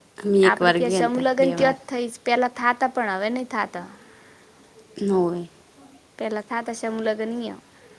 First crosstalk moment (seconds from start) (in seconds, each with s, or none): 0.5 s